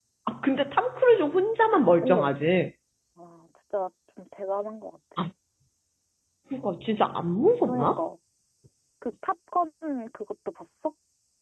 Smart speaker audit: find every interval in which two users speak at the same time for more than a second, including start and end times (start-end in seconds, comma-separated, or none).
none